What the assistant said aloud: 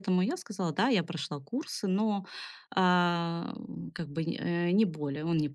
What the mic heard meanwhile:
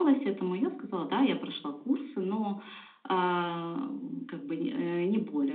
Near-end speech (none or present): none